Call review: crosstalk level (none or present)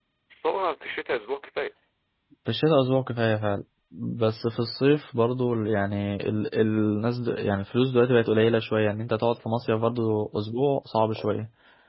none